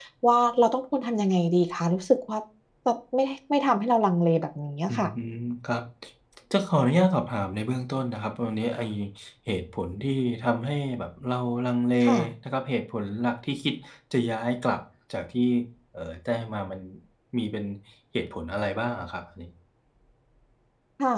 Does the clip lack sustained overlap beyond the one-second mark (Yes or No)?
Yes